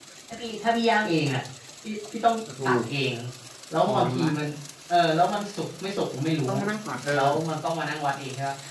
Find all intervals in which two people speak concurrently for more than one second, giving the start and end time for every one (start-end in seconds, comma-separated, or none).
none